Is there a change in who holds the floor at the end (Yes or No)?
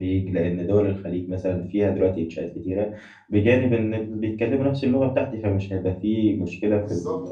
Yes